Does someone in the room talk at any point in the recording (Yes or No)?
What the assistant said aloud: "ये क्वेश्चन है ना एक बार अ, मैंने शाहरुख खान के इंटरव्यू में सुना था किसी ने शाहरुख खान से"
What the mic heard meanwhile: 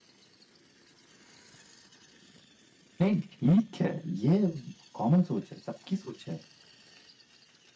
Yes